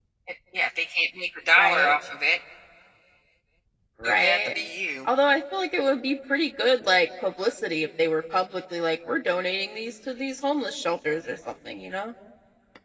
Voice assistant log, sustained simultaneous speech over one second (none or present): none